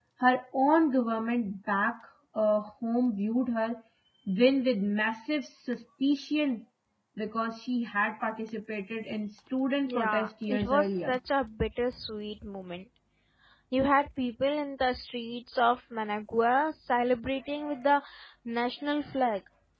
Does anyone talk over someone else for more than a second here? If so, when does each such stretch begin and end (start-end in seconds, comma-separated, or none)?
9.9-11.2